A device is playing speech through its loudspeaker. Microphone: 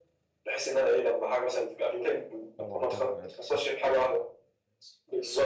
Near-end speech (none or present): present